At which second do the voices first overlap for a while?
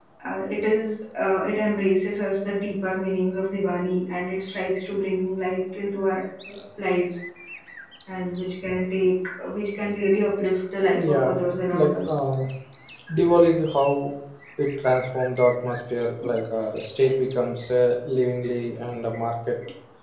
10.9 s

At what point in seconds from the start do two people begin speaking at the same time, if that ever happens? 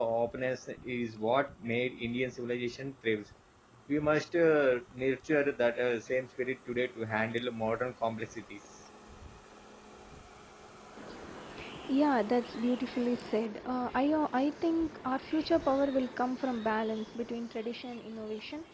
none

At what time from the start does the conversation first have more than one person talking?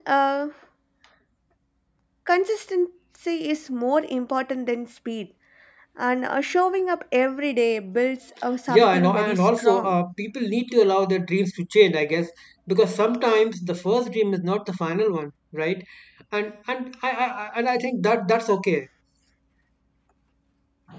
8.7 s

